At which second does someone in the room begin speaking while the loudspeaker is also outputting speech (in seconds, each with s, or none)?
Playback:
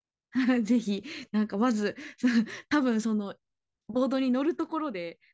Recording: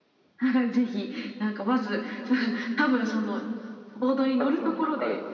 4.4 s